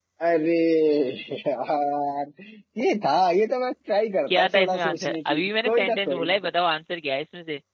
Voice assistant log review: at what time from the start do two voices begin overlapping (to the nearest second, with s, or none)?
4 s